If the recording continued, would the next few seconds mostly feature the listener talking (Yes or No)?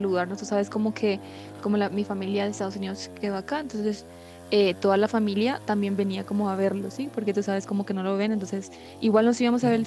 No